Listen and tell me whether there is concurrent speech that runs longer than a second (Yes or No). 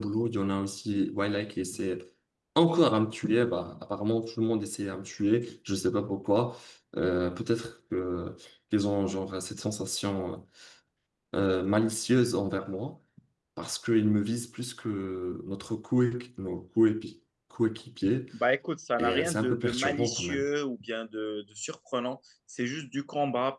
Yes